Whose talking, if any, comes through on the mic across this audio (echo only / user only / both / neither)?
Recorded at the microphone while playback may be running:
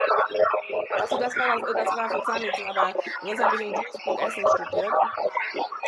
both